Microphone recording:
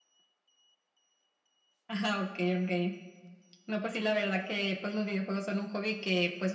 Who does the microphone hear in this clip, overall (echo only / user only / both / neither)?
echo only